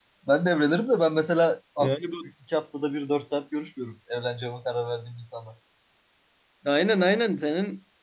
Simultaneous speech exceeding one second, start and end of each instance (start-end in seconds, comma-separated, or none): none